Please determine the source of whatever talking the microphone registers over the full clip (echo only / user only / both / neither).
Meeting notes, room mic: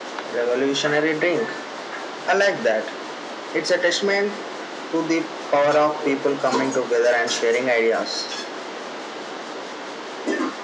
echo only